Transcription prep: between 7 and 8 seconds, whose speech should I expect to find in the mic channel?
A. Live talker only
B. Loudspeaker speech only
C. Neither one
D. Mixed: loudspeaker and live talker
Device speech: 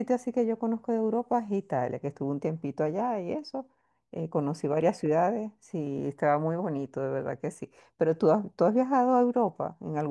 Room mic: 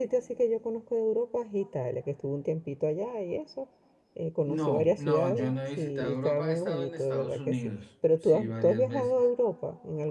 D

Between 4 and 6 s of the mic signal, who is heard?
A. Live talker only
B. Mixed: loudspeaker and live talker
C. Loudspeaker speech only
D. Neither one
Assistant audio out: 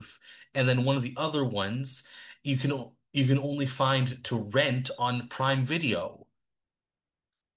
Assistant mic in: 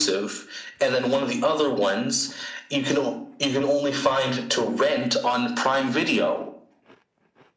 C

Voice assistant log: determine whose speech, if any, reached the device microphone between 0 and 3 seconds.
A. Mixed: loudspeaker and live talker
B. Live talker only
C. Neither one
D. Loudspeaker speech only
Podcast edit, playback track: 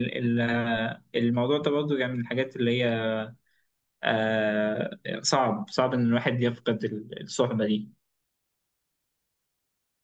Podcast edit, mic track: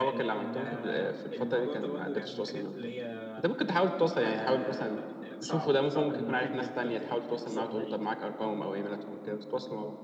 A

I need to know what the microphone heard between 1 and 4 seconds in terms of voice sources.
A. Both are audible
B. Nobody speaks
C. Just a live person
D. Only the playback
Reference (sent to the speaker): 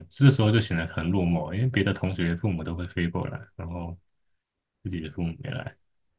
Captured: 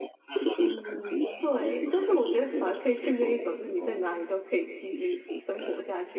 A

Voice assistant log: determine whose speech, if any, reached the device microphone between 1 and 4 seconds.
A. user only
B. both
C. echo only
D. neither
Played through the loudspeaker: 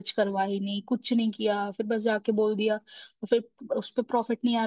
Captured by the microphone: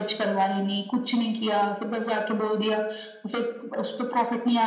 C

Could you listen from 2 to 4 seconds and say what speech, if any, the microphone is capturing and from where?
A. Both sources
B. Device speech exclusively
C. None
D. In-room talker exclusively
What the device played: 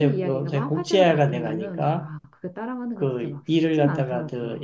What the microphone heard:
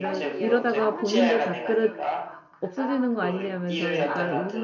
A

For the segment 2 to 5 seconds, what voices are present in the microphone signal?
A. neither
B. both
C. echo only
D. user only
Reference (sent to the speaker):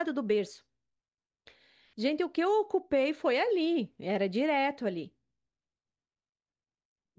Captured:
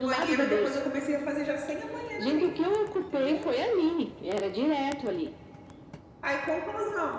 B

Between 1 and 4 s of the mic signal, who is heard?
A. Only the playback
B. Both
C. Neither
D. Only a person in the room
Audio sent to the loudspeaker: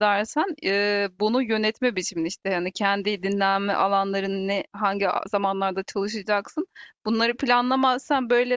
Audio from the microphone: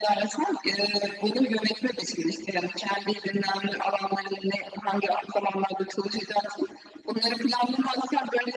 A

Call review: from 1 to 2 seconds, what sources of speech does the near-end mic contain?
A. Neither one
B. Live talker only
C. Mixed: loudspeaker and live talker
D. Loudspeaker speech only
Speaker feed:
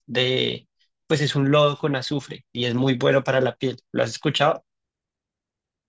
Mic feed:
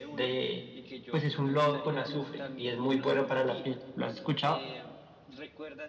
C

